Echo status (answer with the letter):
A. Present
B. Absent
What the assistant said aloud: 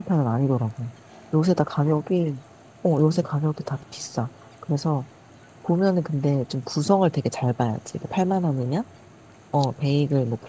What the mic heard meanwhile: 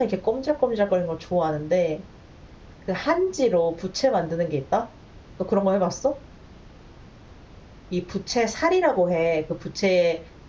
B